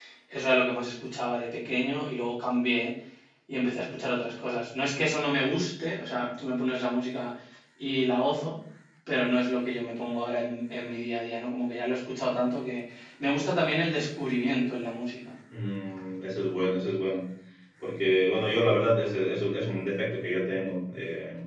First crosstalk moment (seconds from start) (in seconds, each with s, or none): none